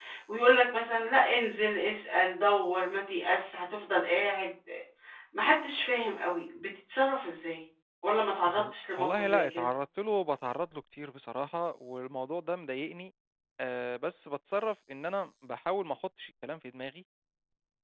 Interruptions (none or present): present